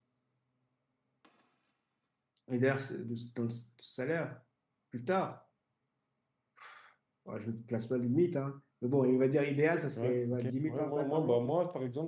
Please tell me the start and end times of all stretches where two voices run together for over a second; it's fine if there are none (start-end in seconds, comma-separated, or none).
9.9-11.4